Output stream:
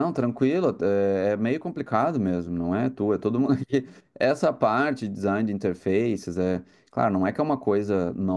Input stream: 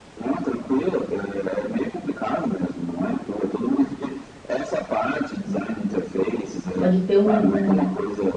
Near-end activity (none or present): present